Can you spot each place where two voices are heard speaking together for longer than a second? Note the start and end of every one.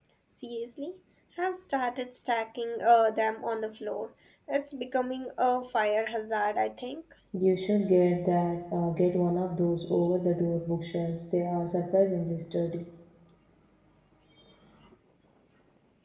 none

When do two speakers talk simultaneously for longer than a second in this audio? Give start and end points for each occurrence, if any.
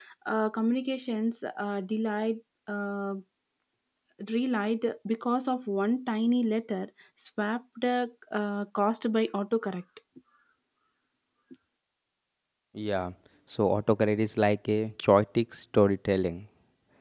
none

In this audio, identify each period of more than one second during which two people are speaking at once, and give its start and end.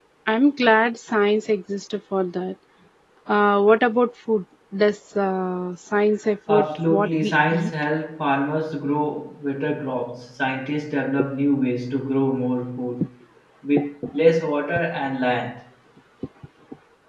6.5-7.7

